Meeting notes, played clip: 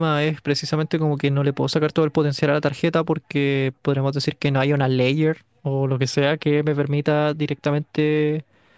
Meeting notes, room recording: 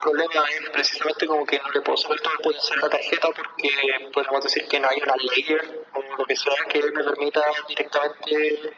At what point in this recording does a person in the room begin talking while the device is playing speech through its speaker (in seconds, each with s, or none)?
none